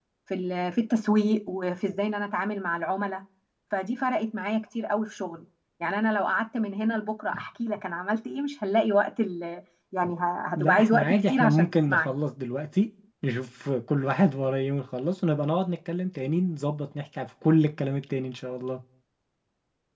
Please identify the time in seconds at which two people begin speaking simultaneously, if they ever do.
10.6 s

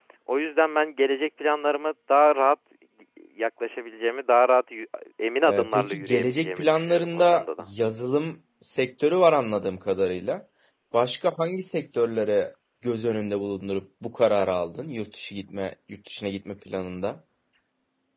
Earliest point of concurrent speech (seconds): 5.4 s

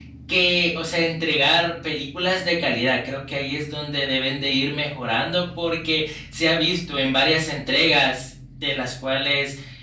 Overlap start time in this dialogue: none

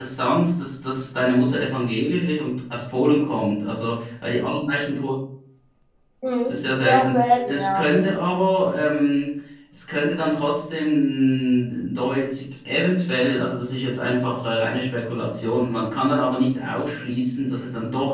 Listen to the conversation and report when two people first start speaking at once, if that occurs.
6.5 s

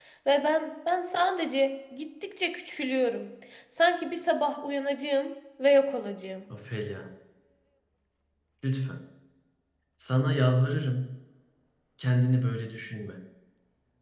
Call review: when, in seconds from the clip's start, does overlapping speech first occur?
none

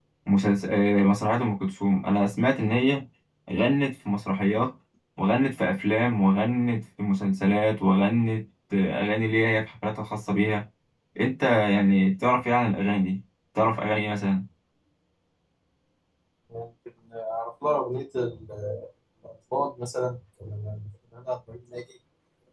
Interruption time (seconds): none

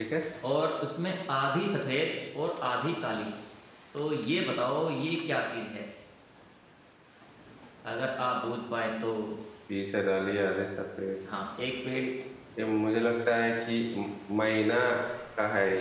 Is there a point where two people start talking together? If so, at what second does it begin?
none

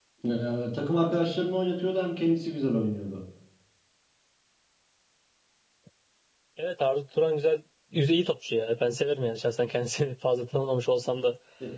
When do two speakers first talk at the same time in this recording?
none

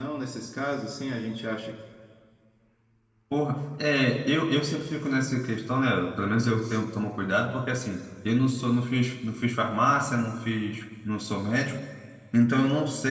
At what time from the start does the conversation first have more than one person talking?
none

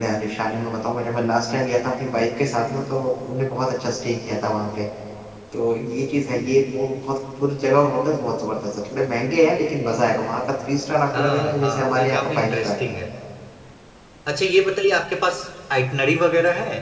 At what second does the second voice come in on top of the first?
11.1 s

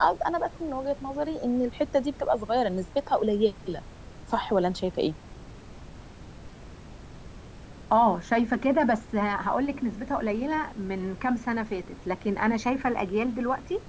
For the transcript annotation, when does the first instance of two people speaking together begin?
none

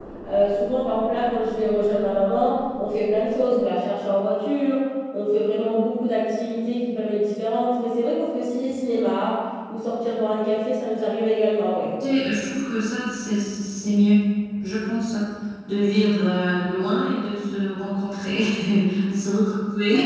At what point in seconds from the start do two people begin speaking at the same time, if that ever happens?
none

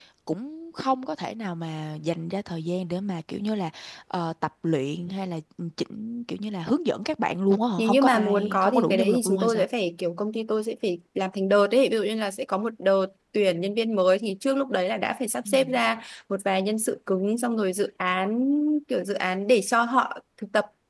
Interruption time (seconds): 7.8 s

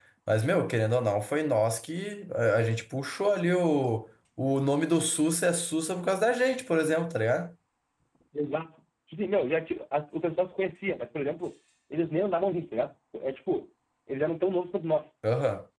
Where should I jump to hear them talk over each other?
none

